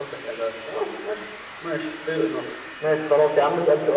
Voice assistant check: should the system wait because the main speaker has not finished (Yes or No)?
No